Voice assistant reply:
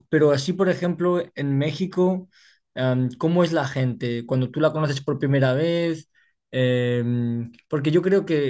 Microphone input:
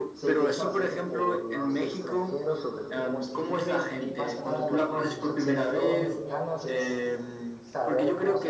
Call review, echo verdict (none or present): present